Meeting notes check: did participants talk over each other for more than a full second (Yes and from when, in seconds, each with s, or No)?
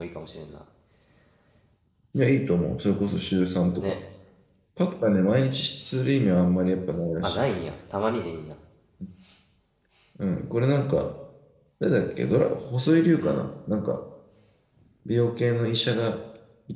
No